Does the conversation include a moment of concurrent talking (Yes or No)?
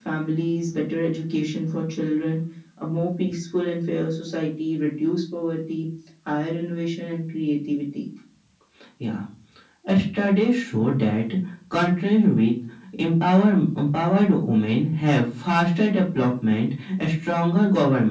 No